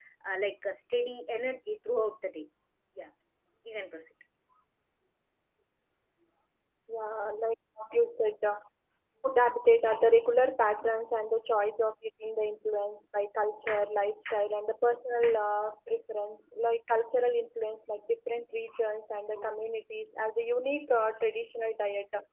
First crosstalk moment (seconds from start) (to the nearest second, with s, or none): none